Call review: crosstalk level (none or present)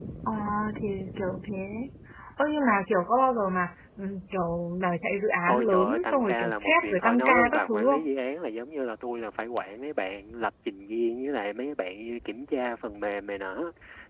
present